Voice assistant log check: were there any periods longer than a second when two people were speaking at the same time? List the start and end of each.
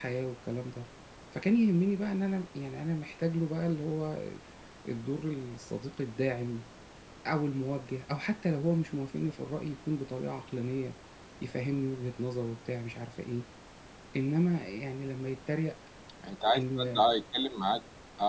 none

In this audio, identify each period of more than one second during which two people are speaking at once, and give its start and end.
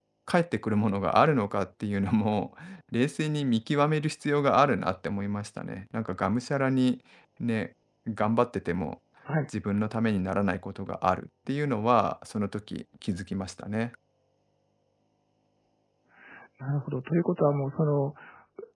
none

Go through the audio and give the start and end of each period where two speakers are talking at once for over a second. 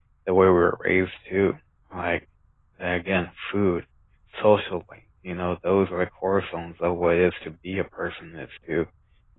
none

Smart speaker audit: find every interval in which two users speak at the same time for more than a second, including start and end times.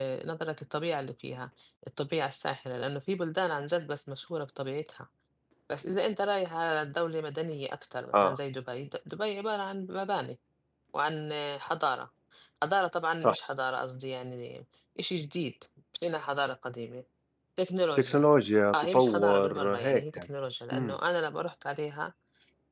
18.7-20.3

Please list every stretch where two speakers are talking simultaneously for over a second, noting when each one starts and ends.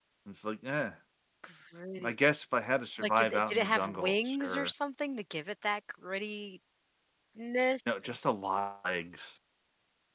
3.0-4.7

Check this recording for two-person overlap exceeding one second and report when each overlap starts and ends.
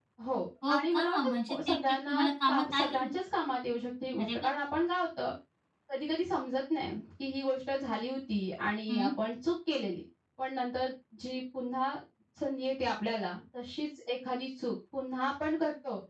0.7-3.1

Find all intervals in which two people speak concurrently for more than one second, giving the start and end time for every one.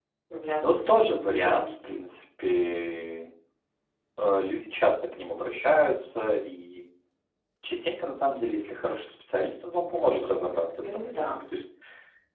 0.6-2.0

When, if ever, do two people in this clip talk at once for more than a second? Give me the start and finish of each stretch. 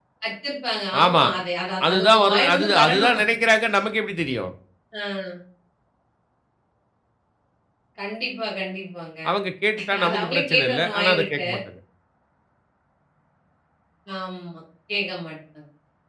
1.9-3.2, 10.0-11.5

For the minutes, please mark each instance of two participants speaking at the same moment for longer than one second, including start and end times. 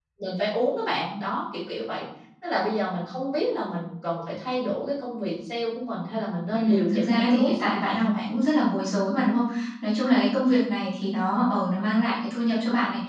6.5-8.3

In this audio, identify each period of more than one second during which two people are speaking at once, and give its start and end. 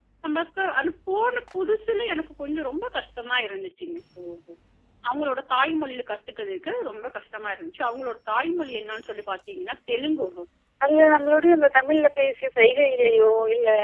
none

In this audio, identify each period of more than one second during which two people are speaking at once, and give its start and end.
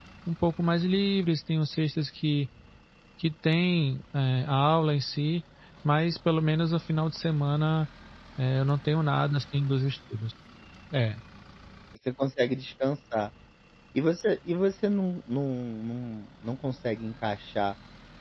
none

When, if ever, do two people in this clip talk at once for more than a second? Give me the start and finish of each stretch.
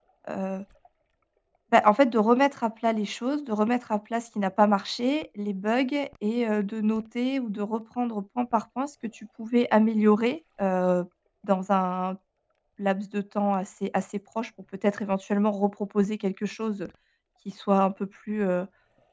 none

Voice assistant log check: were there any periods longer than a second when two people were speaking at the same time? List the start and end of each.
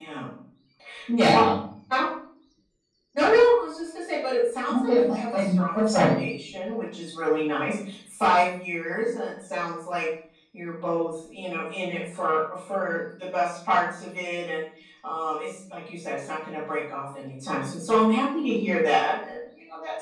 4.9-6.1

